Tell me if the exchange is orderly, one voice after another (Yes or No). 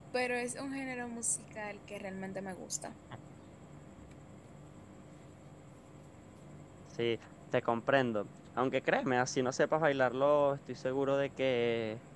Yes